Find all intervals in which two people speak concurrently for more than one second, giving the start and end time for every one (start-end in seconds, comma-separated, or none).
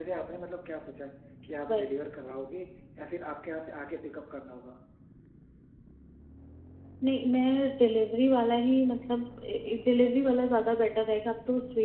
none